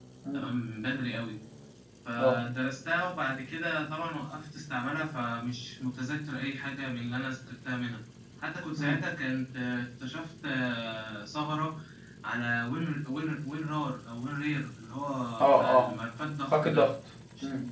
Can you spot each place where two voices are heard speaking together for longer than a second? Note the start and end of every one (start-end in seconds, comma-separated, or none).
none